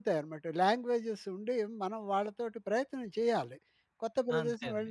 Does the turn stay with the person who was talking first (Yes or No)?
Yes